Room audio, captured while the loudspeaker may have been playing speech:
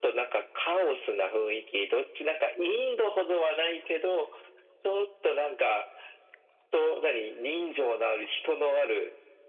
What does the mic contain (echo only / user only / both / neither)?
echo only